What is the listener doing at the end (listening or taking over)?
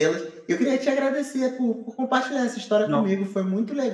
listening